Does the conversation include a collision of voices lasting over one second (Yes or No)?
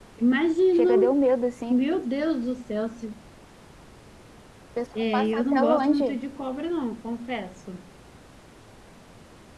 Yes